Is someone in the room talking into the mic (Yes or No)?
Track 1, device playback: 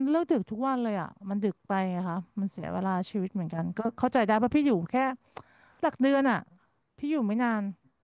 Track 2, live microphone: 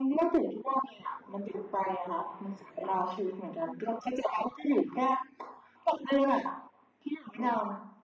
No